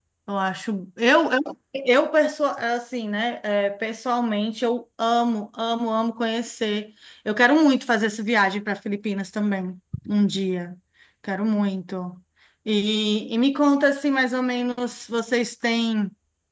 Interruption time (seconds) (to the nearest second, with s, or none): none